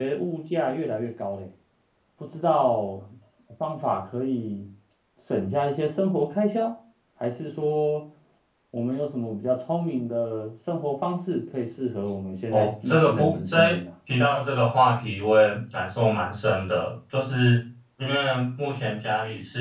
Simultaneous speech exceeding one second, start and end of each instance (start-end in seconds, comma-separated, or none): 12.5-13.8